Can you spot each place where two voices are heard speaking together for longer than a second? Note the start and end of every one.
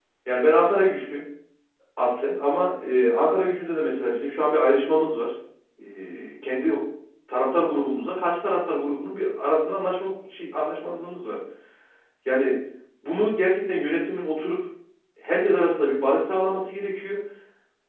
none

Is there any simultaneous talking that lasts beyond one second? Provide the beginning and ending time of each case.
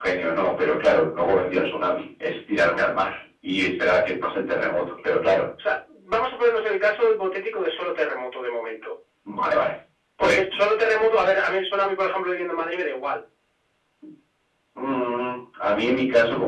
none

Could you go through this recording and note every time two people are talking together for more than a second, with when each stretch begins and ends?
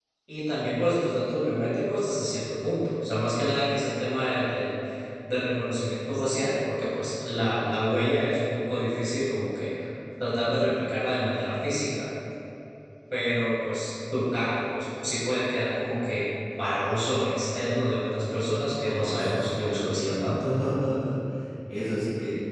18.8-20.3

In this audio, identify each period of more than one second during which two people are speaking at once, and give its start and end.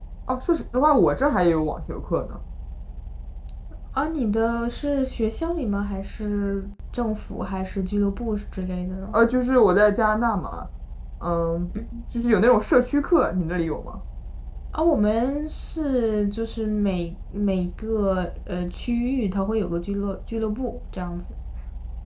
none

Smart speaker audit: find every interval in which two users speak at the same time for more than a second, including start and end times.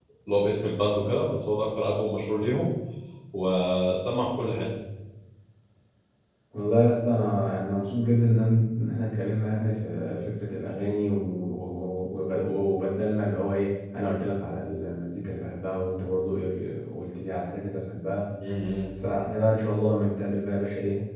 none

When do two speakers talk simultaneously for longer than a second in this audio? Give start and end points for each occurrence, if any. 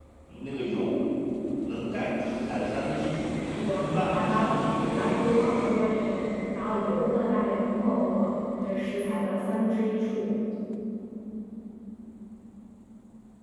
3.6-5.5

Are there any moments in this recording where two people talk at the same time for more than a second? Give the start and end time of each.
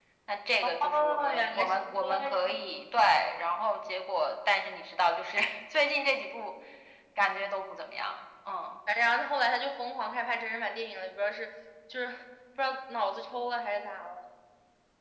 0.8-2.6

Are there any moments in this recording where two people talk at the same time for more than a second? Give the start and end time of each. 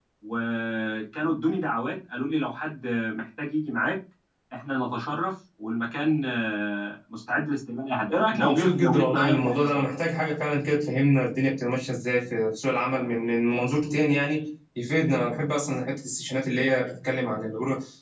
8.3-9.8

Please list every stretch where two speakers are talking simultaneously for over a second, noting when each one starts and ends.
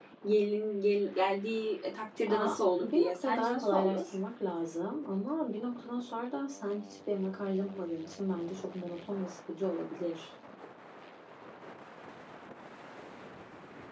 2.3-4.0

